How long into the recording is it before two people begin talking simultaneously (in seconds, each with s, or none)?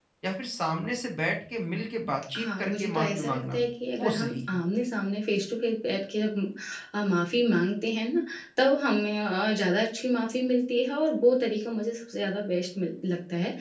2.4 s